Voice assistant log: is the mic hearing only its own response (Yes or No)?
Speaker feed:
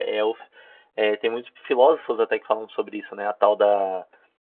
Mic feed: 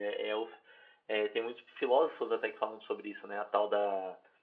Yes